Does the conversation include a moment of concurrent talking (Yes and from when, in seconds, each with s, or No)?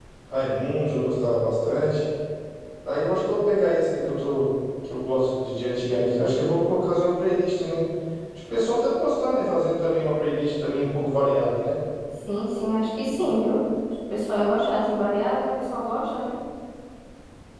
No